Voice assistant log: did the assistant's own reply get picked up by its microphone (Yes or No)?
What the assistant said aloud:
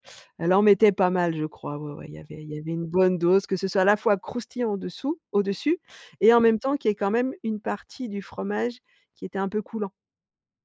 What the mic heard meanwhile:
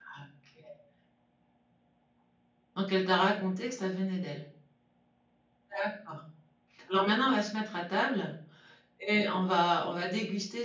No